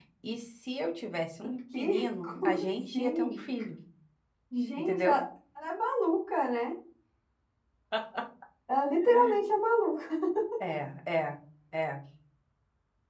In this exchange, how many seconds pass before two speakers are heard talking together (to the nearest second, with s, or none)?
2 s